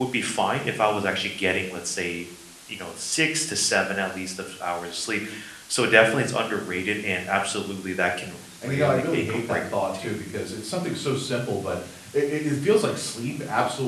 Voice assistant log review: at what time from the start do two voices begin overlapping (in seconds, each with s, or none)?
8.6 s